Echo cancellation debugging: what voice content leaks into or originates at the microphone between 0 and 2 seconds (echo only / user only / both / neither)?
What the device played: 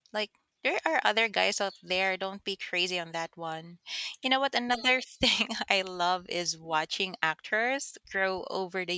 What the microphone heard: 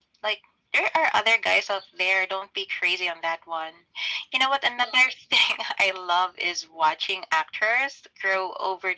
echo only